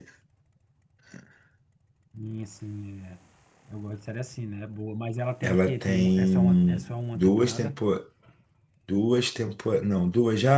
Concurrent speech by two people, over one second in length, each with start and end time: 5.4-7.7

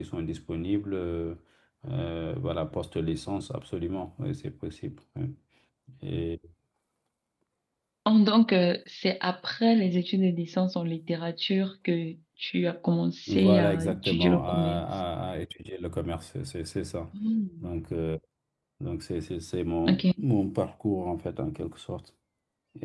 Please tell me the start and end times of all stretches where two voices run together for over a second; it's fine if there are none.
13.3-14.8

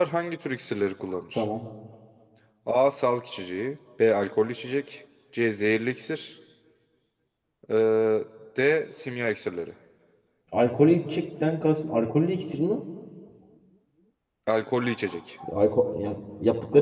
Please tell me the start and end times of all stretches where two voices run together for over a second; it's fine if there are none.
none

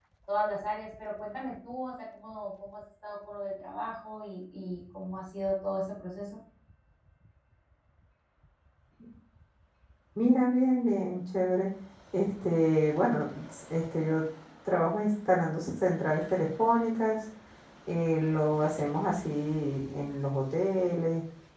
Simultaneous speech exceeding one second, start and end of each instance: none

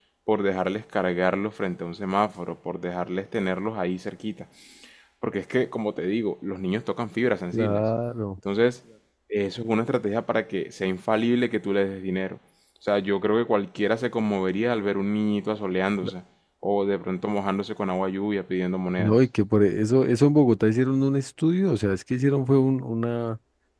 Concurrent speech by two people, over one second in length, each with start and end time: none

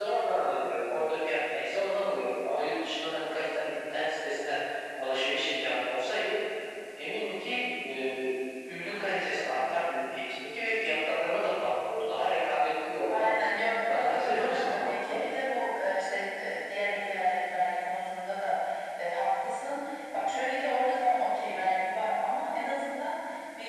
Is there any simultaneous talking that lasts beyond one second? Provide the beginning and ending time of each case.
13.9-15.2

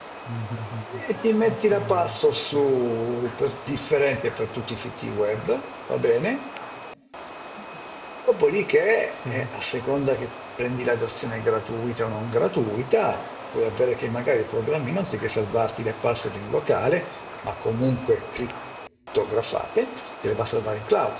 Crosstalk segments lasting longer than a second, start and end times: 1.4-2.8

